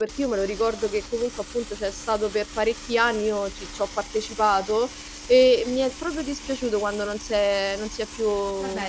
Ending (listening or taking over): taking over